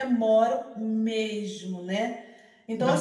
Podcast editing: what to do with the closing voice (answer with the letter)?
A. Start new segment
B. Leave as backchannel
B